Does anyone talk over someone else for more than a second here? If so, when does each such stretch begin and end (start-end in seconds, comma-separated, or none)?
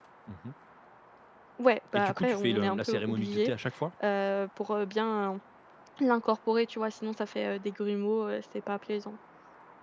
1.9-3.5